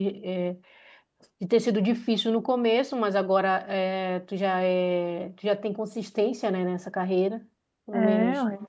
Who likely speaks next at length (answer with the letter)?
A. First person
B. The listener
A